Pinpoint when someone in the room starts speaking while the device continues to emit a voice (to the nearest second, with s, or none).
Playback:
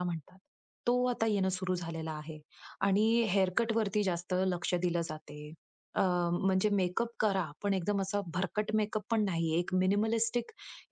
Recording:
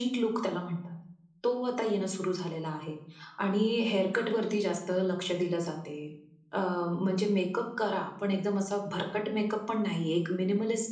none